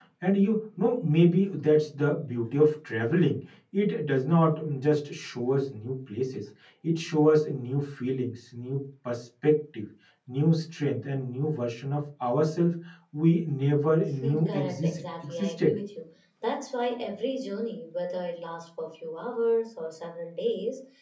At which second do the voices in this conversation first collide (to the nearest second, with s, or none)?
14 s